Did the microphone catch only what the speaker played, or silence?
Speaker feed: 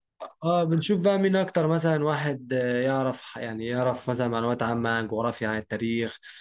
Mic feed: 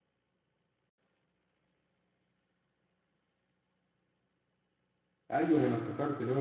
No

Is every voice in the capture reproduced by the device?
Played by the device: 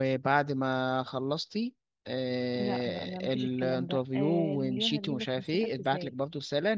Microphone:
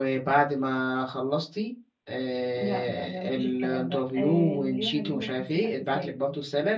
Yes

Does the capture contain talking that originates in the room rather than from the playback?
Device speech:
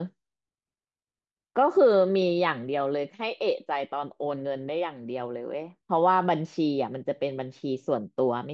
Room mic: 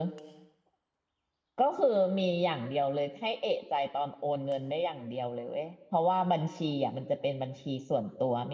No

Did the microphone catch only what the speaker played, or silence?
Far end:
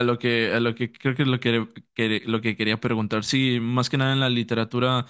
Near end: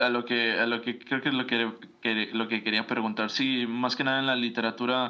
Yes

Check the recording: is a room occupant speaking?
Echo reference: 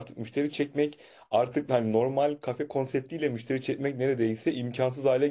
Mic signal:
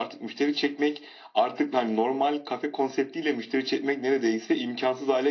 No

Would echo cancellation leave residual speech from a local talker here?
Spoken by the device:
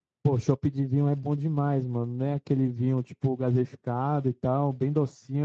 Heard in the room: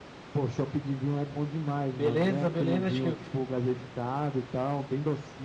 Yes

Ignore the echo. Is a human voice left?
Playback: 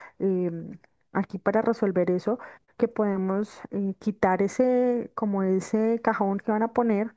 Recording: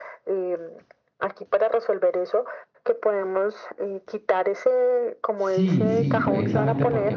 Yes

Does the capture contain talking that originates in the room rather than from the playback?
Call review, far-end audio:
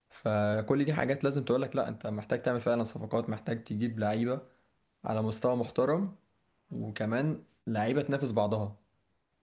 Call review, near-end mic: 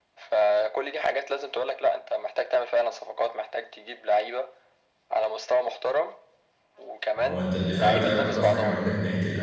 Yes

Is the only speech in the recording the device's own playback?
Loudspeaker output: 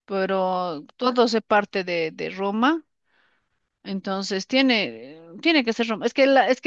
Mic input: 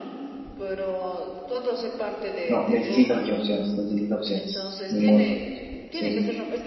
No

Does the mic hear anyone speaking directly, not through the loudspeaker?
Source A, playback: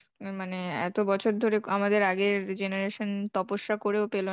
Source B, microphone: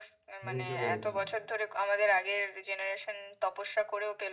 Yes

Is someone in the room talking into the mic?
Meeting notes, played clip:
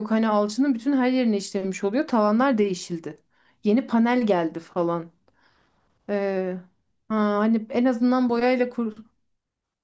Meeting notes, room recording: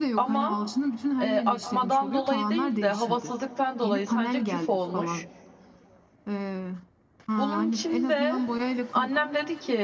Yes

